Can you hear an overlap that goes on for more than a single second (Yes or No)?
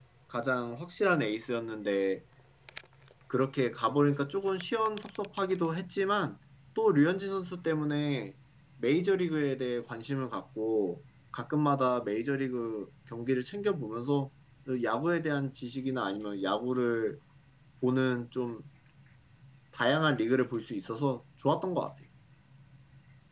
No